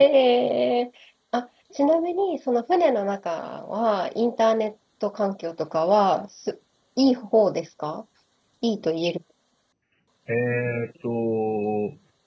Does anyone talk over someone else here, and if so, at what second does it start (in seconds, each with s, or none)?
none